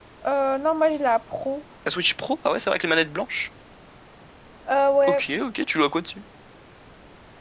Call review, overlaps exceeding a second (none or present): none